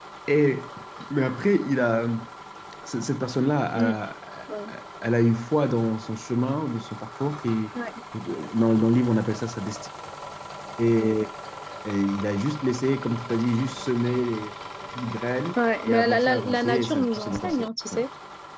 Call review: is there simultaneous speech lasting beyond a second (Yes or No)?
Yes